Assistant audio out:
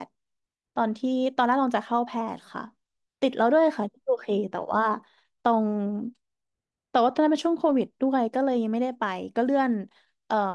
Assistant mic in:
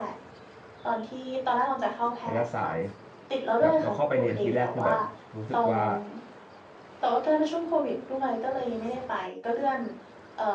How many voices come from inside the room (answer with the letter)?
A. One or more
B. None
A